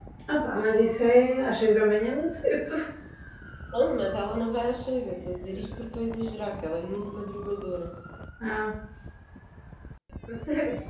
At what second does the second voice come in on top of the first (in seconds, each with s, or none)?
none